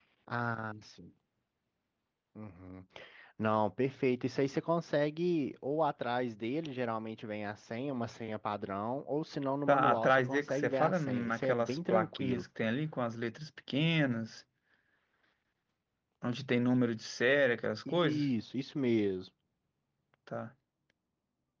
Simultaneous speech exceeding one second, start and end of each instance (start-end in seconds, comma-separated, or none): 9.7-12.4